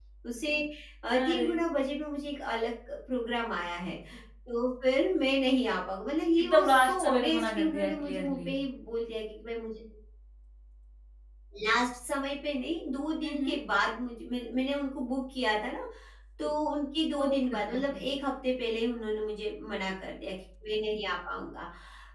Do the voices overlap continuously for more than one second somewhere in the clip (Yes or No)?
Yes